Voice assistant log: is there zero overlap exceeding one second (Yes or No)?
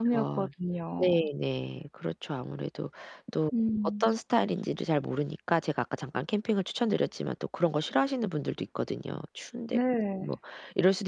Yes